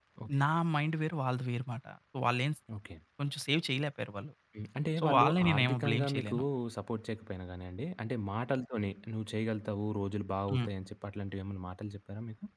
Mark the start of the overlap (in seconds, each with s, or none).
5.0 s